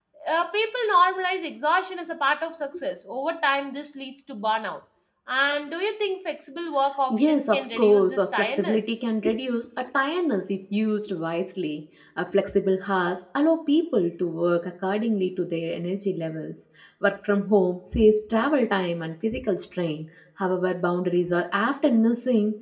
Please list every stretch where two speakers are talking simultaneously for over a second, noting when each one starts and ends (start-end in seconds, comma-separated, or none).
7.1-9.0